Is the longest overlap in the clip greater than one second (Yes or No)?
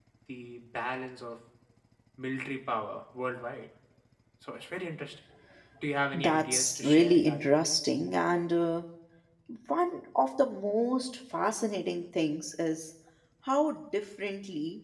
Yes